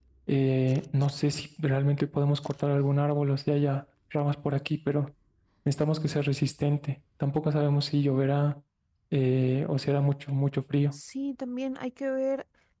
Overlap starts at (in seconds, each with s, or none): none